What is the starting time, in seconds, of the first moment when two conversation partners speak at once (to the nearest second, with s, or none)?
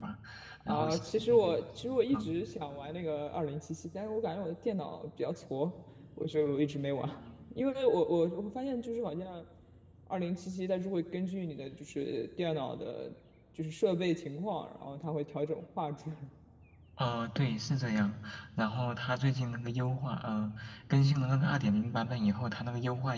1 s